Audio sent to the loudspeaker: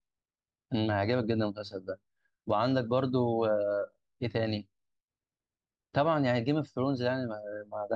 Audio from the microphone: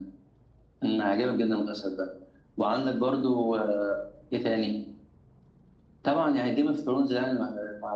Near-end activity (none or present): none